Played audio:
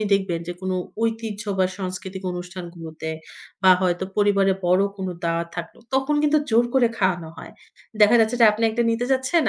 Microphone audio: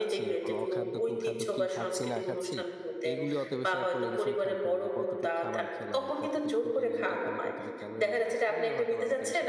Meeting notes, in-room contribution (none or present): present